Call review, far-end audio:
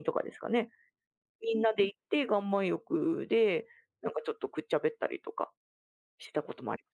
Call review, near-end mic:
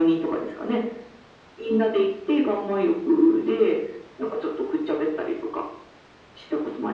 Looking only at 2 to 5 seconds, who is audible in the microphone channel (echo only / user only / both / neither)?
echo only